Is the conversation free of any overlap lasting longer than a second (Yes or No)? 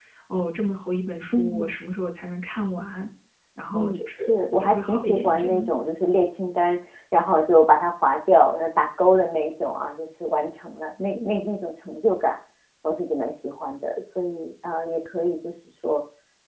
No